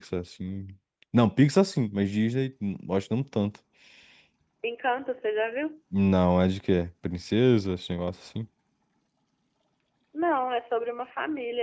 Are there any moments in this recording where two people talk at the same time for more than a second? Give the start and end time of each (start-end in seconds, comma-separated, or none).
none